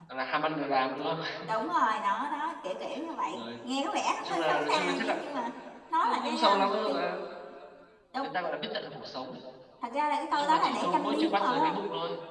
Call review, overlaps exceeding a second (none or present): present